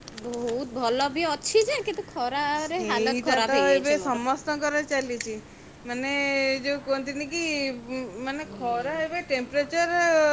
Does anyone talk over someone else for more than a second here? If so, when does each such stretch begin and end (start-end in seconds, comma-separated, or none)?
2.6-4.2